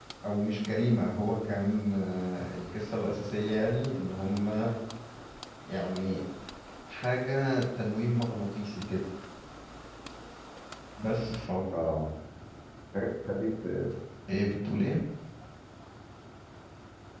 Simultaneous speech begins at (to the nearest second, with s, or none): none